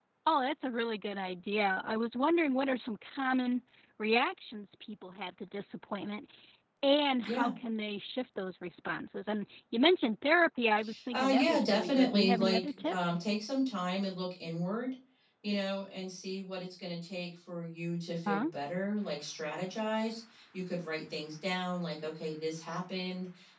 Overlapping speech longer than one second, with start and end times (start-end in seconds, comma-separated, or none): 11.1-13.1